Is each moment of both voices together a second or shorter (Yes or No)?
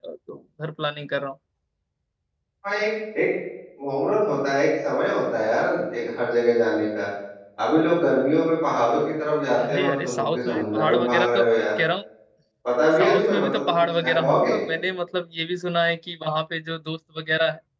No